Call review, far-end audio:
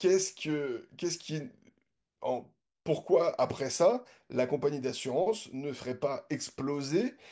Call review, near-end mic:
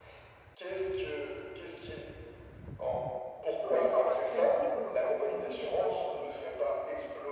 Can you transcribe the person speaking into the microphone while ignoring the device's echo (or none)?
Oui, mais non, par principe, non, par principe et par euh,